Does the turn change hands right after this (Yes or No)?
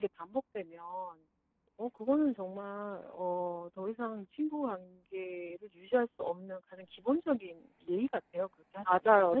Yes